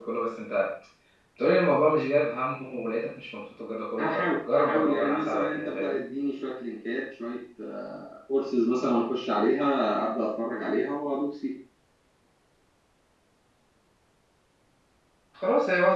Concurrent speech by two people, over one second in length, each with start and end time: 4.0-6.0

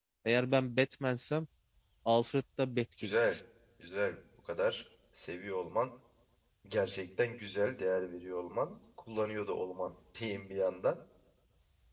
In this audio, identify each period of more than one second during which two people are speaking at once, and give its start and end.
none

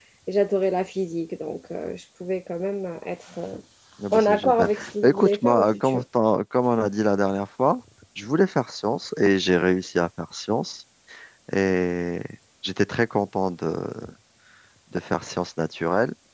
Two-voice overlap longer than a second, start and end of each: 4.1-6.0

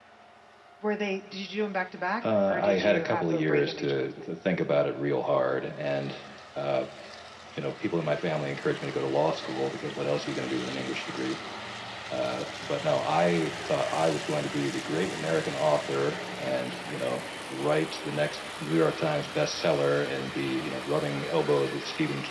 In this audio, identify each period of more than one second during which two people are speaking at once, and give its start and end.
2.5-4.3

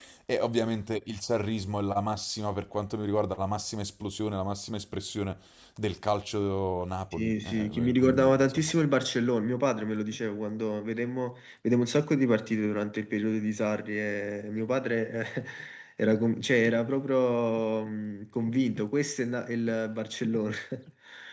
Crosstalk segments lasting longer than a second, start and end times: 7.1-8.7

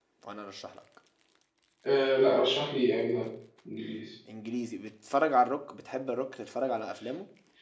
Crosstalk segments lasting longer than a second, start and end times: none

